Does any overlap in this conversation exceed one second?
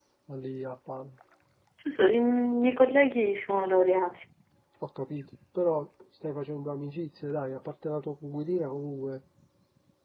No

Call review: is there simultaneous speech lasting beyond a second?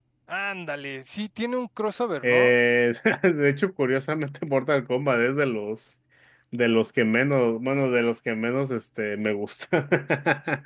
No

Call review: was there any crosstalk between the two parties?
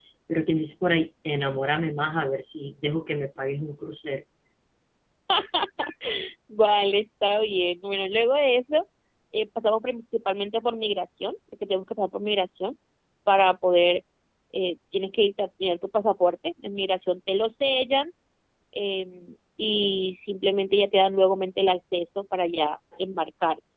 No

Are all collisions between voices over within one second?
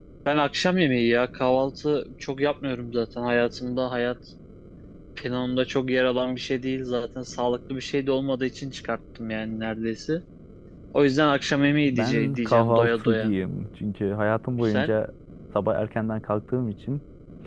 No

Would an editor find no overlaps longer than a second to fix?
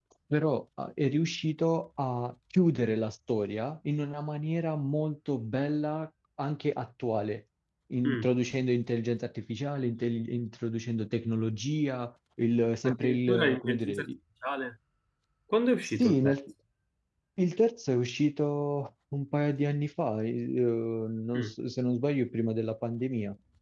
No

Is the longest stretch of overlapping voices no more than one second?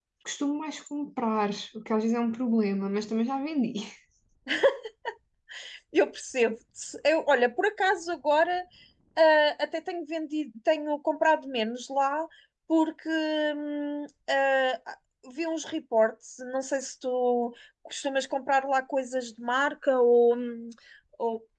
Yes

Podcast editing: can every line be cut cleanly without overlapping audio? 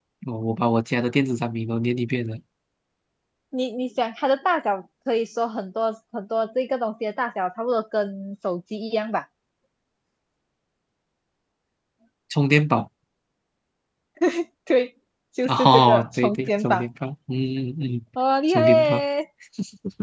No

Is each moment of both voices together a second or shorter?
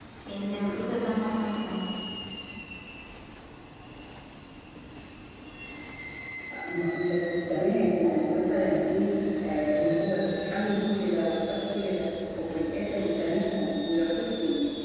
Yes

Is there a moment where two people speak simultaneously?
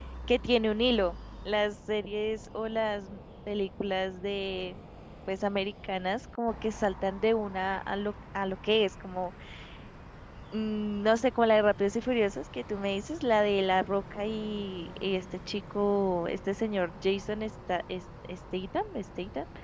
No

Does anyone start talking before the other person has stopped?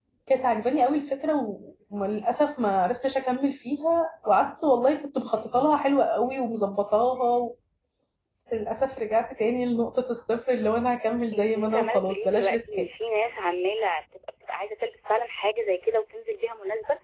Yes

